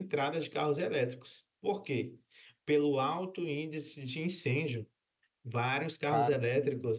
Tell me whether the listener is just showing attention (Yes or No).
Yes